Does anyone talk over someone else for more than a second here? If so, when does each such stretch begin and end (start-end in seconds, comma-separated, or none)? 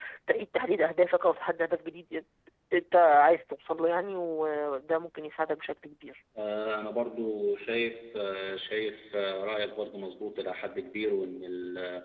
none